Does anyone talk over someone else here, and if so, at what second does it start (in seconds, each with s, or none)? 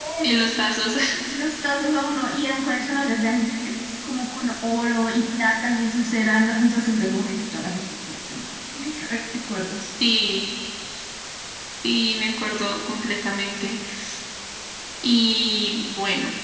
none